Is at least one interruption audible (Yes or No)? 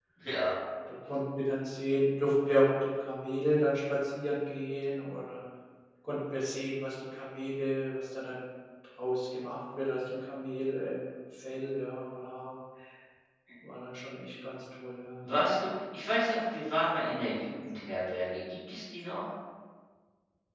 No